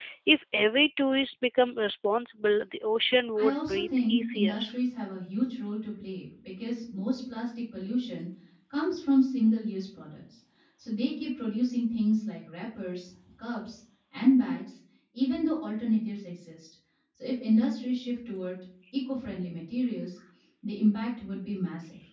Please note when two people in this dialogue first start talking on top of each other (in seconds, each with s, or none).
3.4 s